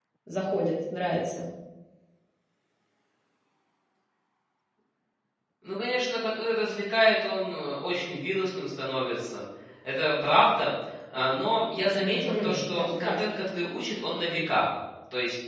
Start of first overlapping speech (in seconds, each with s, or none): 11.9 s